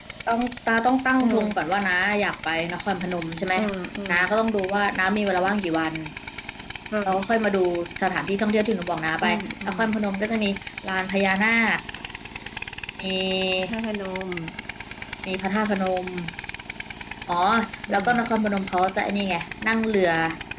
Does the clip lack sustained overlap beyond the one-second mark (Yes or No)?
Yes